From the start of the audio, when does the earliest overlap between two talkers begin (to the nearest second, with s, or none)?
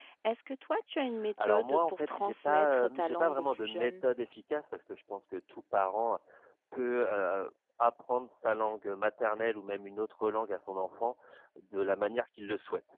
1 s